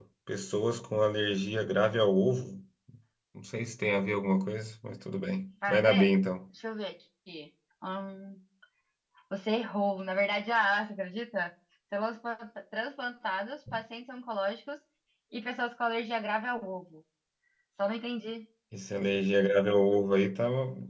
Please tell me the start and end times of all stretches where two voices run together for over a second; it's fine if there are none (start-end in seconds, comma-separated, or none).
none